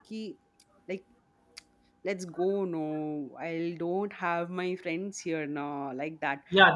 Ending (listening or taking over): taking over